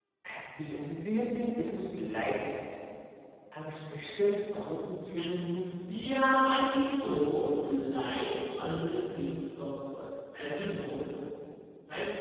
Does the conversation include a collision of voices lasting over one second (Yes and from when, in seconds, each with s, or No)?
No